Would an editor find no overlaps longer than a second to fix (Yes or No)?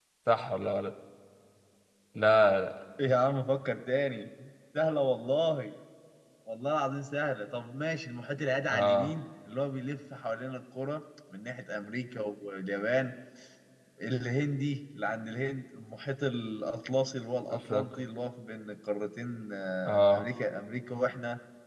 Yes